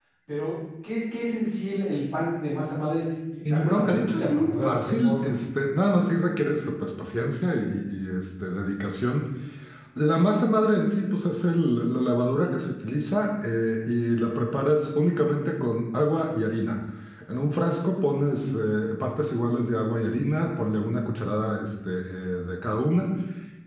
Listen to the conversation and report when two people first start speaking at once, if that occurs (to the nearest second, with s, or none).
3 s